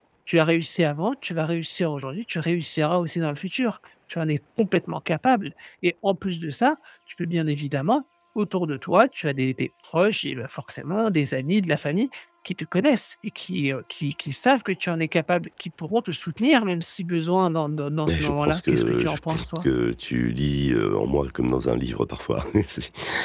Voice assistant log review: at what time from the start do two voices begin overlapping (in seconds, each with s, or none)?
18.1 s